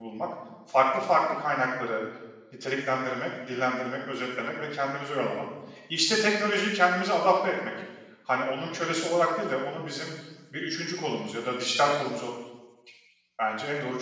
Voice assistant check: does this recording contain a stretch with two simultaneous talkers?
No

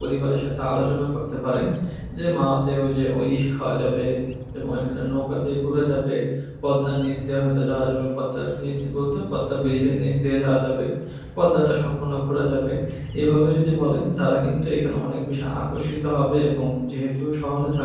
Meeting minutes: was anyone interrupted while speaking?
No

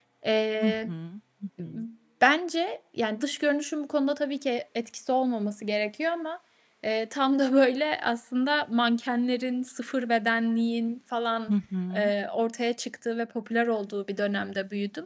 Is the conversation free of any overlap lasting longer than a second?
Yes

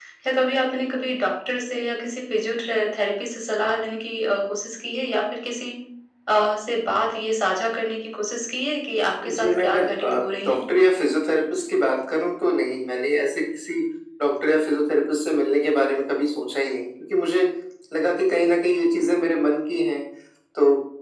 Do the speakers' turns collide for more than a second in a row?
Yes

